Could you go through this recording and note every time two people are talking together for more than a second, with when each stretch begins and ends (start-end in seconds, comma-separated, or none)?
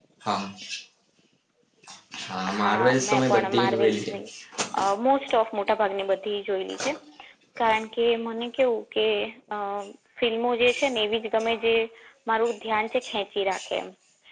2.6-4.1